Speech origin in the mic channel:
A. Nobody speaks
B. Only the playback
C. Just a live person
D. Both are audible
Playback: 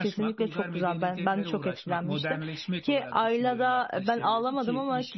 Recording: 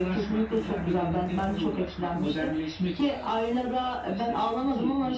B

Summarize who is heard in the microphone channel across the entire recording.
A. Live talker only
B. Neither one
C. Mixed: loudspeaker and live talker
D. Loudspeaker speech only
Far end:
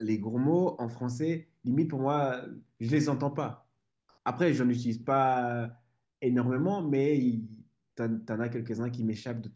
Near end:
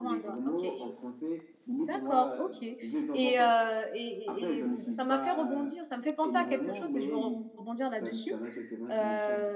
C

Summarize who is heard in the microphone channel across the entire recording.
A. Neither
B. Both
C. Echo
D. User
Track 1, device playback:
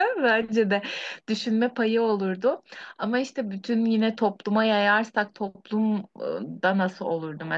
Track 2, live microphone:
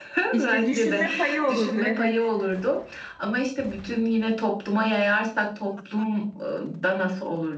B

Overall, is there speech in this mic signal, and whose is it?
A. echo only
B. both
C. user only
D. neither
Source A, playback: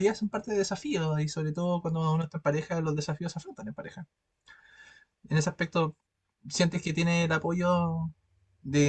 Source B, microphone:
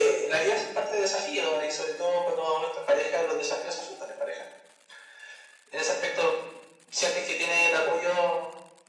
A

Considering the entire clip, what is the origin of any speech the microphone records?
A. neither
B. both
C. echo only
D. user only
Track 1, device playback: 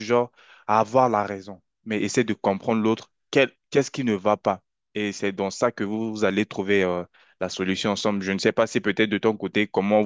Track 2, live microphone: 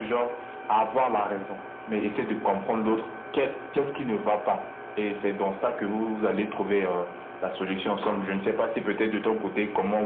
C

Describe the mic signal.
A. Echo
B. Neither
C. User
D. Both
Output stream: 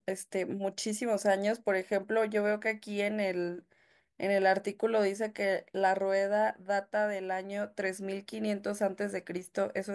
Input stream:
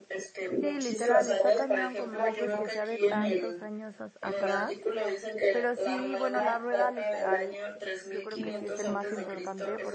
D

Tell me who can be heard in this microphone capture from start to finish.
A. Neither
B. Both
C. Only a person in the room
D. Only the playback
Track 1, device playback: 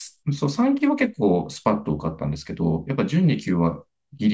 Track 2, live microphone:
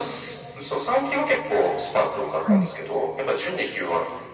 B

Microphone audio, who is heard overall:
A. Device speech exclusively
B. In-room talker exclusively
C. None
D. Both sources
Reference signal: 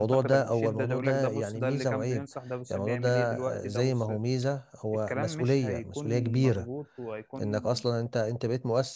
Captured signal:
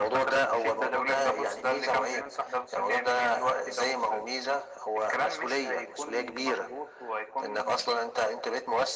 A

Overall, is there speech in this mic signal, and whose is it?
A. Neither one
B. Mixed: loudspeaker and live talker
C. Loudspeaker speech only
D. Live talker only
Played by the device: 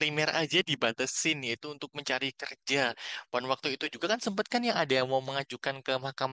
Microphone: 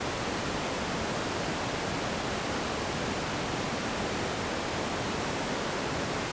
A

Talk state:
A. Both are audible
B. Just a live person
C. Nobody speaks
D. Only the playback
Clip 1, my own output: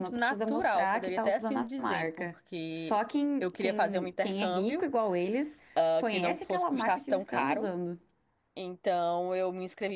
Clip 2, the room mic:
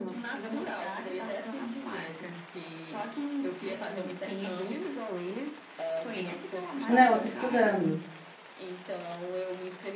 A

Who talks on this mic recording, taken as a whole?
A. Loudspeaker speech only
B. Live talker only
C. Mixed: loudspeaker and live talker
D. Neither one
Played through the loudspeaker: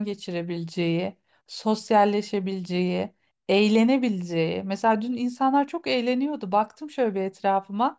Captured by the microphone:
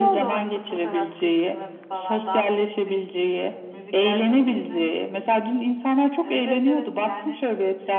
C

